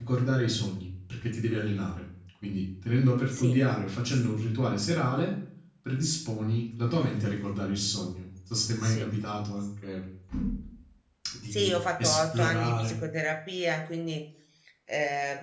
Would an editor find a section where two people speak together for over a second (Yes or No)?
Yes